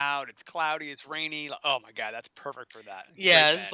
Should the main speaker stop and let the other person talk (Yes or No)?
Yes